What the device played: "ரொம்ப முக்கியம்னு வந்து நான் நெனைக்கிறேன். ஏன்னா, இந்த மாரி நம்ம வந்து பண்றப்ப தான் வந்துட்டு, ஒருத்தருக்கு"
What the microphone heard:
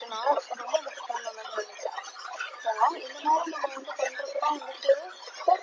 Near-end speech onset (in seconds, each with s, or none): none